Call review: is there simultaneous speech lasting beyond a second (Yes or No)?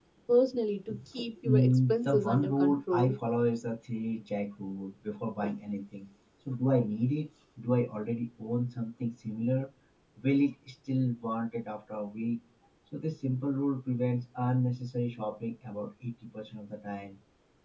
Yes